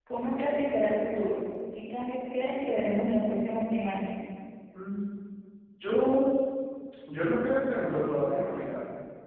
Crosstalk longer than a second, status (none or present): none